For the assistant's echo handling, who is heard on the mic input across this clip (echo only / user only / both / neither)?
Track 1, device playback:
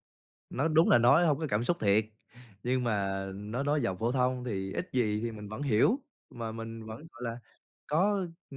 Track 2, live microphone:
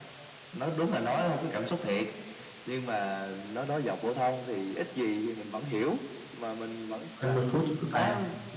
both